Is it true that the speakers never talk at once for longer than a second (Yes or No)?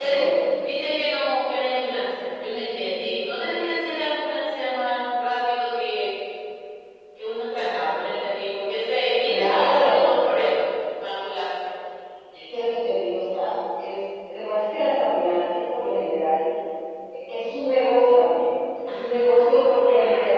No